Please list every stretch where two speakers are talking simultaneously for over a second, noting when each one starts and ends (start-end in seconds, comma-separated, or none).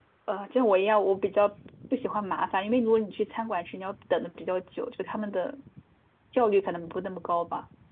none